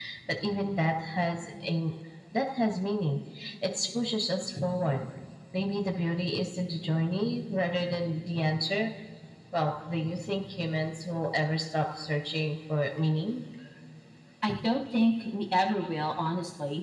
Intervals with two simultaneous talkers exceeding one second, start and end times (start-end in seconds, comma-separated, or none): none